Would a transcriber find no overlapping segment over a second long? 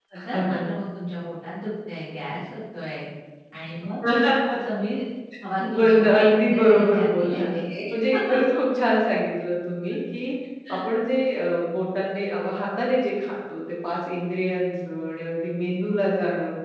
No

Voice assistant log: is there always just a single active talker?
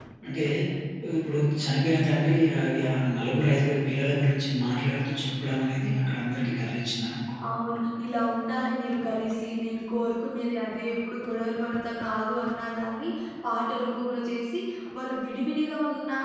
Yes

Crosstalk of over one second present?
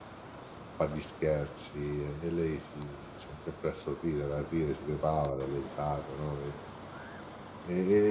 No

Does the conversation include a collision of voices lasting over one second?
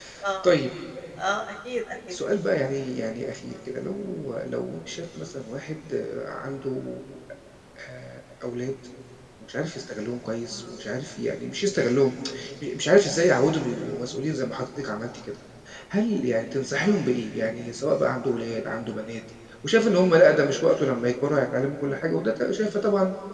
No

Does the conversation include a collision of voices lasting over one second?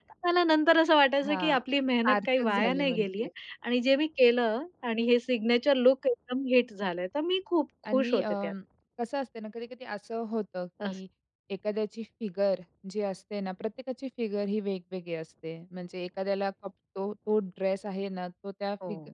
Yes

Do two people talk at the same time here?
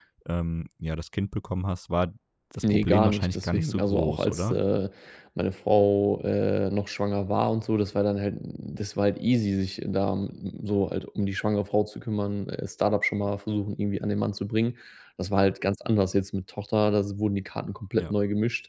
Yes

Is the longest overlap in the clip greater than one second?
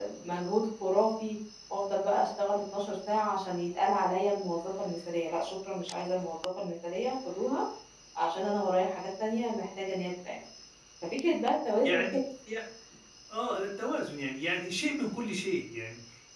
No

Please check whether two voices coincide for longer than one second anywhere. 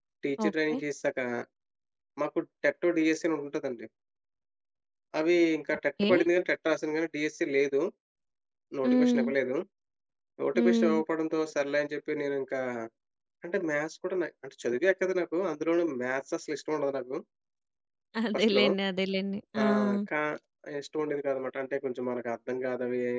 No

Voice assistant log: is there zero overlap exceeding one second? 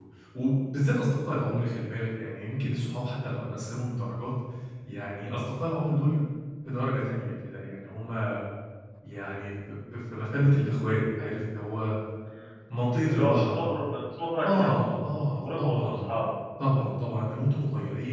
No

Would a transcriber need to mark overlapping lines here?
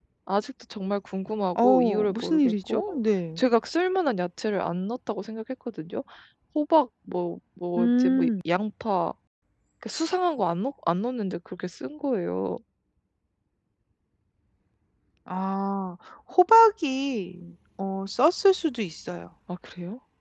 Yes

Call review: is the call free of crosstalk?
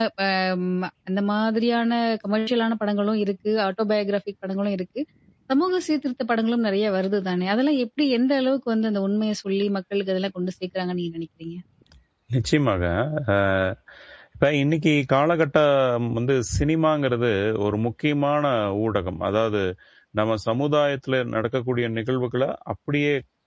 Yes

